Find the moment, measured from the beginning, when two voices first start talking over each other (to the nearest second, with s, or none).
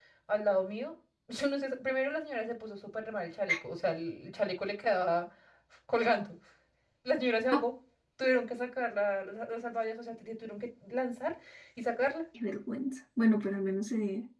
none